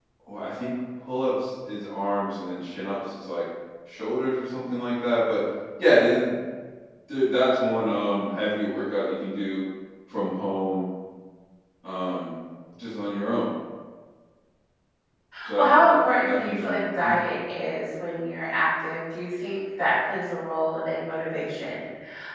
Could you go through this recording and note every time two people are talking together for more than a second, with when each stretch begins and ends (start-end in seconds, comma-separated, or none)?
15.6-17.2